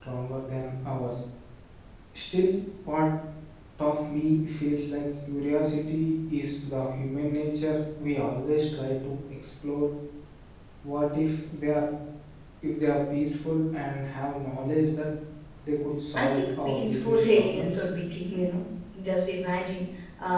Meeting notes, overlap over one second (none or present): present